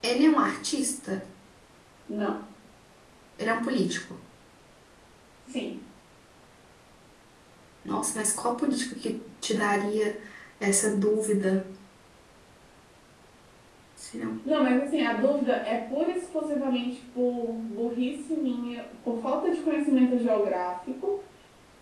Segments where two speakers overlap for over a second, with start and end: none

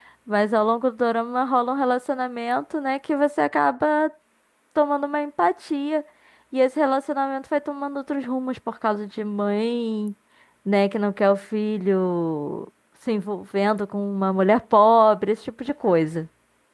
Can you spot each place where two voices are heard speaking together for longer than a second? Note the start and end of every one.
none

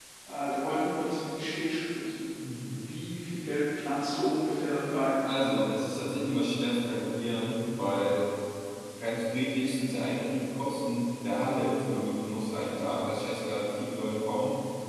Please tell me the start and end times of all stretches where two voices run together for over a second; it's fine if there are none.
none

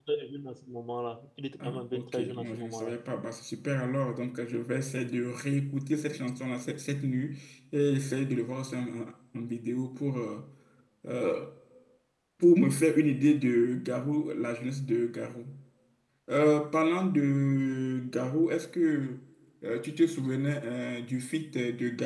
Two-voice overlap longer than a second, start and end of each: 1.6-2.9

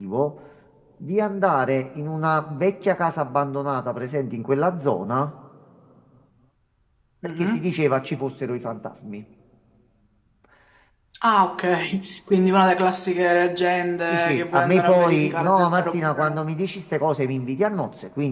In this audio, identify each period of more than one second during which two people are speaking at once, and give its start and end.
14.1-16.4

